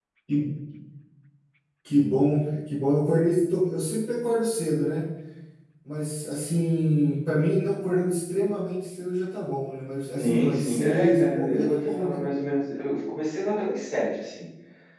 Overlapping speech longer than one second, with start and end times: 10.2-12.2

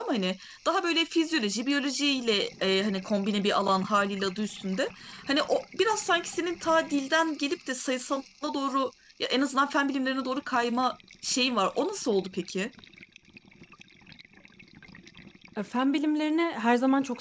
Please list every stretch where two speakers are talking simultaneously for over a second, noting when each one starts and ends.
none

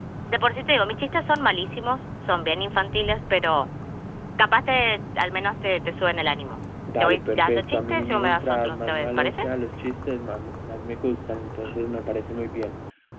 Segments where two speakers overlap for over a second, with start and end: 7.0-9.4

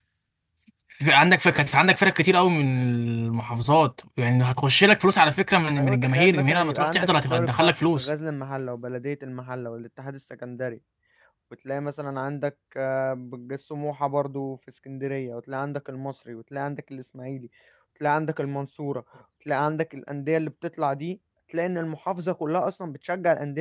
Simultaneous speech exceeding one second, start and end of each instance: 5.8-8.1

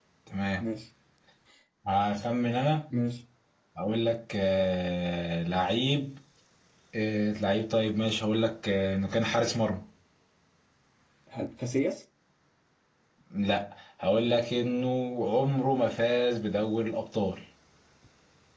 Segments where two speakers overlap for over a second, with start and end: none

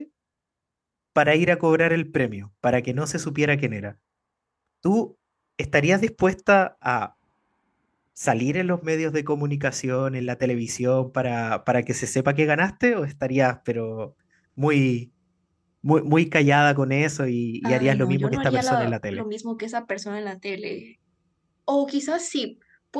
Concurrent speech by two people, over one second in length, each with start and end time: 17.6-19.2

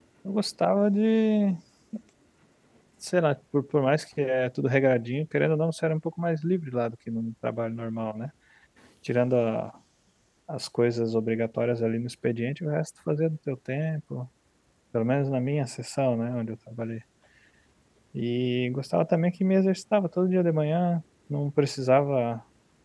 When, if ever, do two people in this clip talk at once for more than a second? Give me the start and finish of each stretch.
none

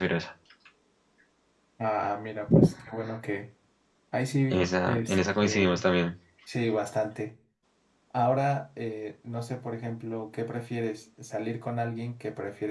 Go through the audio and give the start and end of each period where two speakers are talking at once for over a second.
4.5-5.9

